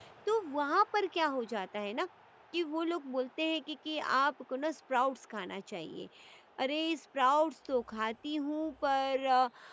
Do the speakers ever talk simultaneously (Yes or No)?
No